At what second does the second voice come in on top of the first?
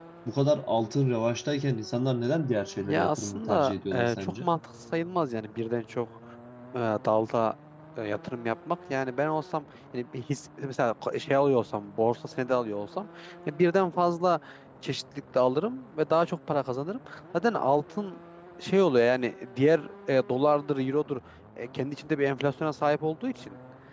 2.8 s

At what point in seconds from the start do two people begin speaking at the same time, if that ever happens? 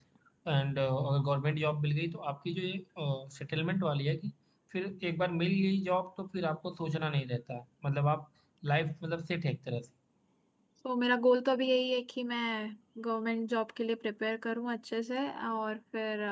none

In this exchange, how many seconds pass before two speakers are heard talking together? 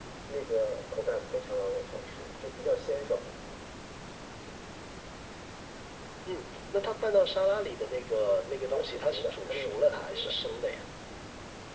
8.7 s

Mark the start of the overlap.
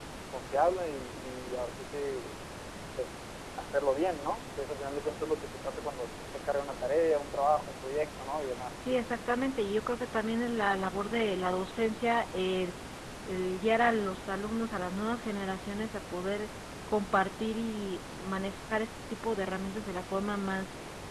none

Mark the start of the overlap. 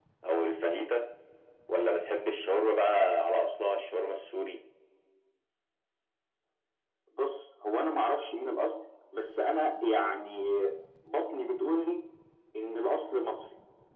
none

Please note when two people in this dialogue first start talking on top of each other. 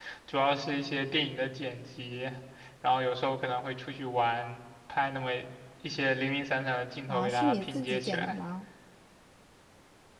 7.1 s

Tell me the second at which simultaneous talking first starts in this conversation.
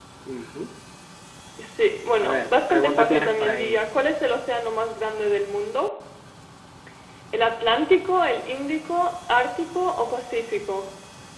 2.2 s

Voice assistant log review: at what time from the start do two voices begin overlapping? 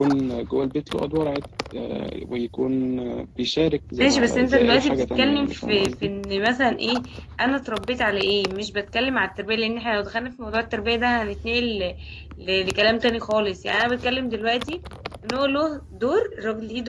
4.0 s

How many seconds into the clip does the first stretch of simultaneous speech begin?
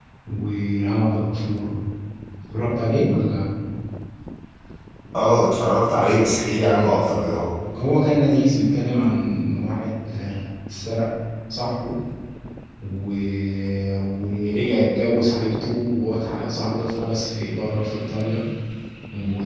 none

